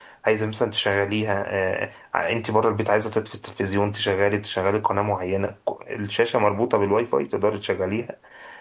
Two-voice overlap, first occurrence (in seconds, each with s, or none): none